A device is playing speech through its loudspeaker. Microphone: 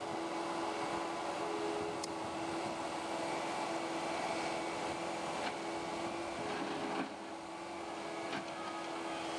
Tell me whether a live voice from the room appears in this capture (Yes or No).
No